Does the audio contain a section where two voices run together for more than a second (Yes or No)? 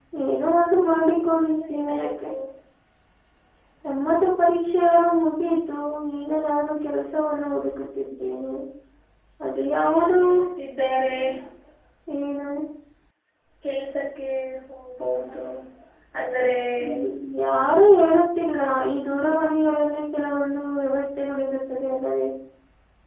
Yes